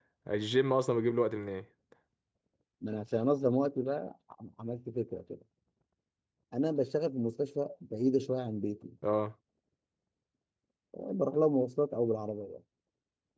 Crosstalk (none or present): none